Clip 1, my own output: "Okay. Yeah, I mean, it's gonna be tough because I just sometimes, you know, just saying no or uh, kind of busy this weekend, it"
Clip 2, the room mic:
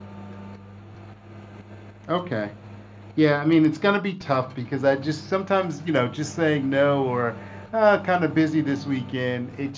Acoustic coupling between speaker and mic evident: Yes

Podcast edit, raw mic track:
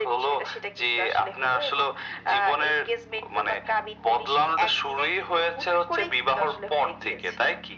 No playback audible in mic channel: No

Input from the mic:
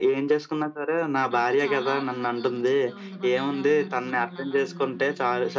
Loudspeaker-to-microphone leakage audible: Yes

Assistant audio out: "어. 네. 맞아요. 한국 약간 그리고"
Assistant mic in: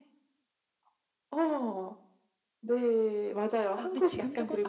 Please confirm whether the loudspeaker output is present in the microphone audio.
Yes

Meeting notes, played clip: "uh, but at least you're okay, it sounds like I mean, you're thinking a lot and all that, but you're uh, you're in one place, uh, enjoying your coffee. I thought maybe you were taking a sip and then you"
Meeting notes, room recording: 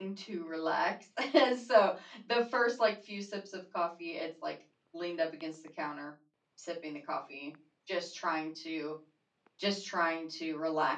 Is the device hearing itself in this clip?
No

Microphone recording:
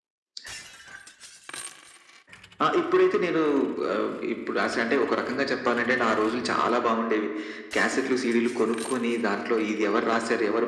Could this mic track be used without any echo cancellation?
No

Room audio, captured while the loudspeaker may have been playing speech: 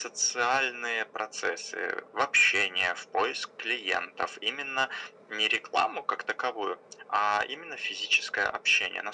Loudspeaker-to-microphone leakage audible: Yes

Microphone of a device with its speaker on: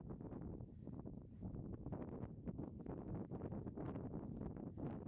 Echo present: No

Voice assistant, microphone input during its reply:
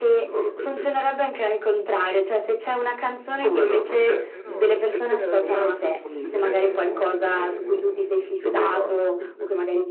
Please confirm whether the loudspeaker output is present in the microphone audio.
Yes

